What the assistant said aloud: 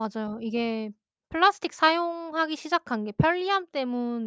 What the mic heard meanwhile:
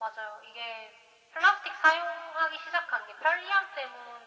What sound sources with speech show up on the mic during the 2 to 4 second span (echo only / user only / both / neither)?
echo only